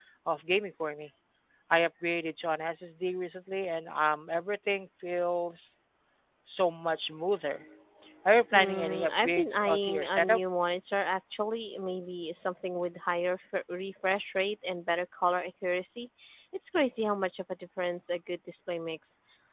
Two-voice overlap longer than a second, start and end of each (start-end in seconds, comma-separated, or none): 8.5-10.4